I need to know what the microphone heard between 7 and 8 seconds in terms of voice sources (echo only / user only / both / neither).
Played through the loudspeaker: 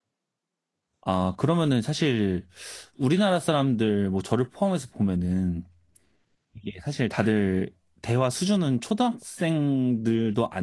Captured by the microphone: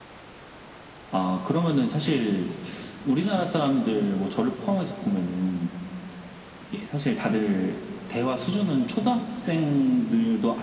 echo only